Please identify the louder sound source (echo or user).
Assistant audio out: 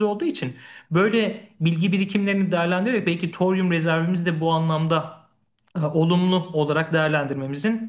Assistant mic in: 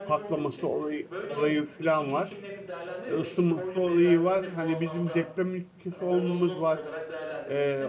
user